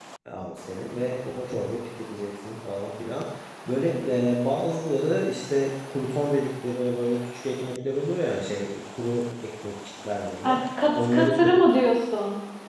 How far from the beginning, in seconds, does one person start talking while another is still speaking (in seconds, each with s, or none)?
10.4 s